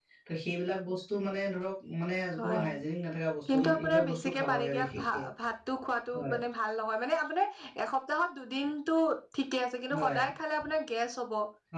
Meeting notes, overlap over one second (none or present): present